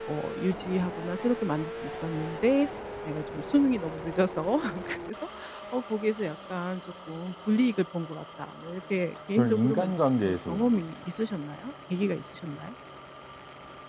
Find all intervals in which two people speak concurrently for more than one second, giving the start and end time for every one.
9.4-10.8

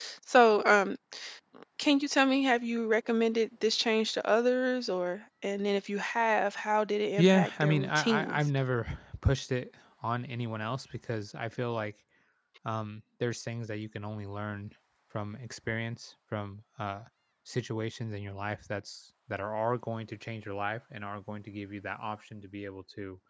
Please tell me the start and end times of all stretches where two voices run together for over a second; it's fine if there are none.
7.2-8.4

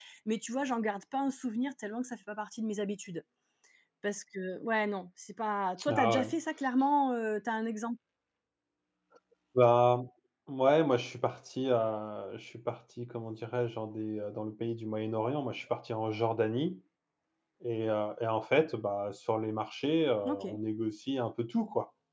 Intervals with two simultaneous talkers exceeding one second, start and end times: none

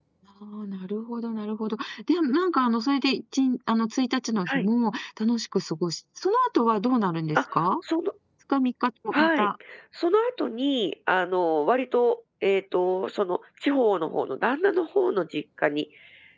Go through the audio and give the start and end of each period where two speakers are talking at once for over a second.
none

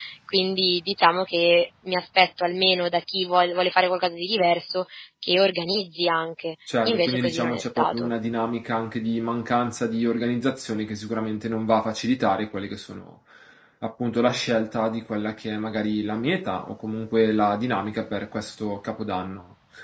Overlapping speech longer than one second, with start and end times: 6.8-8.1

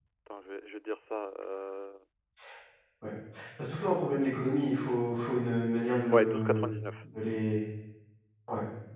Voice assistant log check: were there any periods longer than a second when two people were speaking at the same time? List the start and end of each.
none

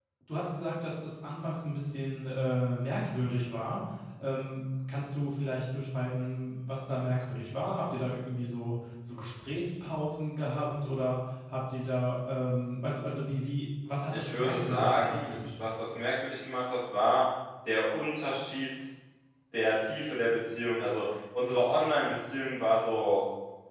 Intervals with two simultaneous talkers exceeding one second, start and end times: 14.1-15.4

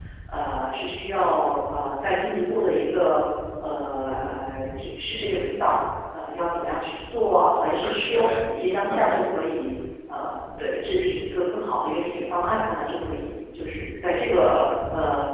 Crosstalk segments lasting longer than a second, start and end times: 7.7-9.2

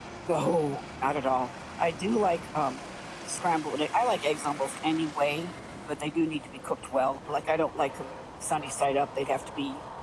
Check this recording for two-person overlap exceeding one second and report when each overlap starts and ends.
none

